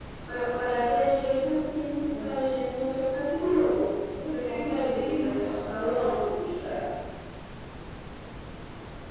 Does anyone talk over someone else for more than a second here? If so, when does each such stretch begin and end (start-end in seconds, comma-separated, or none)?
4.5-6.2